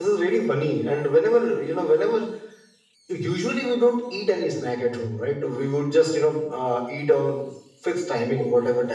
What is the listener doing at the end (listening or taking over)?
listening